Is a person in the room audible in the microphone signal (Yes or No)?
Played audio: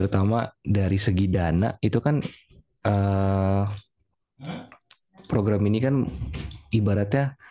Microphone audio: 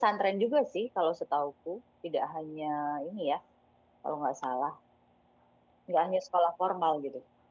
Yes